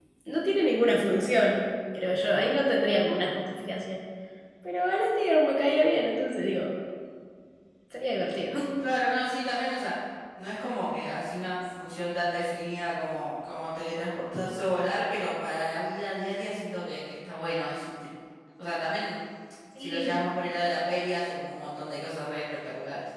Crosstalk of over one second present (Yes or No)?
No